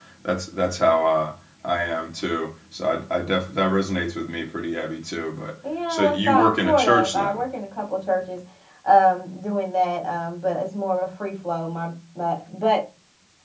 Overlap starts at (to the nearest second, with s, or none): 6 s